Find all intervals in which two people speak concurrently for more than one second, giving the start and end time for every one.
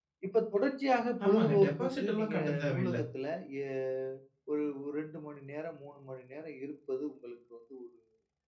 1.2-3.0

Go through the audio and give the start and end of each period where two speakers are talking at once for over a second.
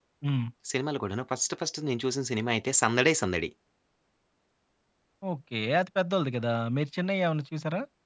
none

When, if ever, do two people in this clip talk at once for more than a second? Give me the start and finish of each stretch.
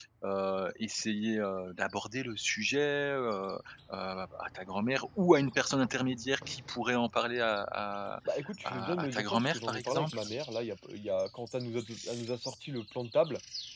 8.6-10.2

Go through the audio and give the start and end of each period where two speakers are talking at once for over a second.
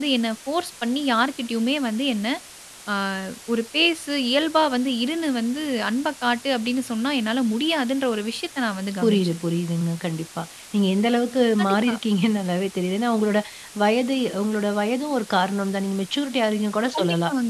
none

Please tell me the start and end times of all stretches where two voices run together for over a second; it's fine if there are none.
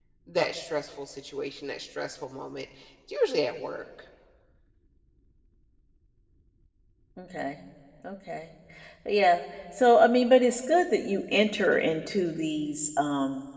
none

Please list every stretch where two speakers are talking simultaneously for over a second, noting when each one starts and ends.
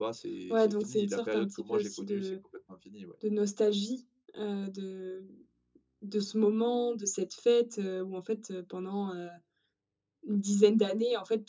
0.5-2.3

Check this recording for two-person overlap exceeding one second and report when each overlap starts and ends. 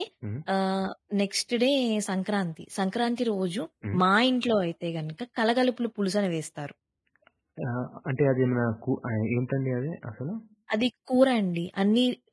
none

